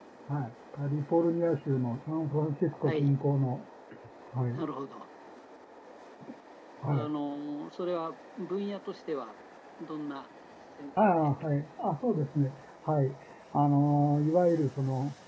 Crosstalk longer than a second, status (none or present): none